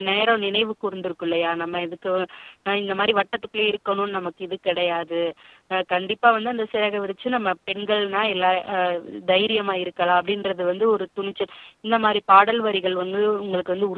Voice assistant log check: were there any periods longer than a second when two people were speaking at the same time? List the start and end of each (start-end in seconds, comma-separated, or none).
none